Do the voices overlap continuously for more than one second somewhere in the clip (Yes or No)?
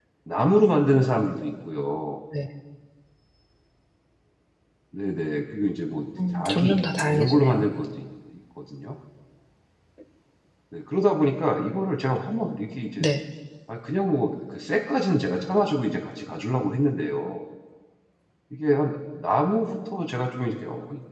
Yes